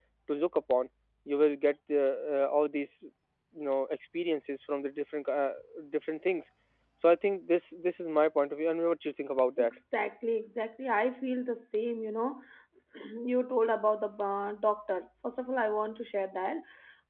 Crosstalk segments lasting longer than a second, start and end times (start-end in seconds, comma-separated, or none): none